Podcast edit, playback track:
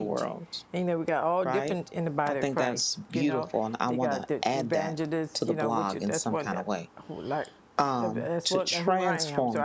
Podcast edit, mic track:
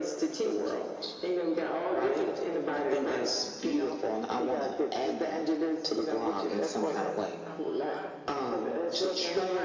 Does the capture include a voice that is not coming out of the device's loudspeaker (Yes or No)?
Yes